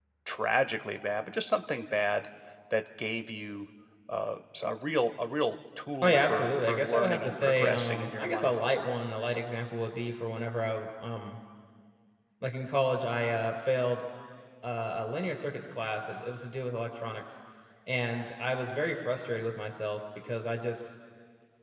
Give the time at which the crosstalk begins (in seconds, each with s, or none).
6.0 s